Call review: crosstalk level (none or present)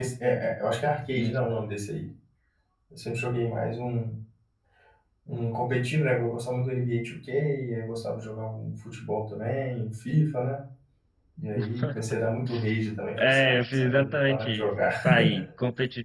present